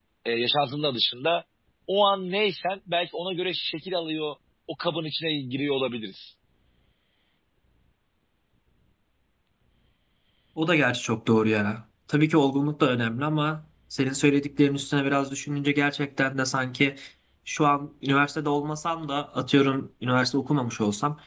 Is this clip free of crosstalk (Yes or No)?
Yes